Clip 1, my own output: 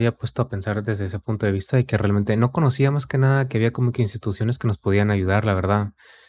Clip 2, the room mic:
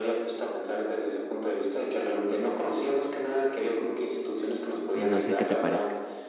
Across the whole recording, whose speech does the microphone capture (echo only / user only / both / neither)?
both